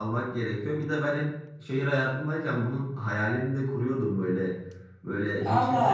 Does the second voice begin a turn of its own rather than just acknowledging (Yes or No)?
Yes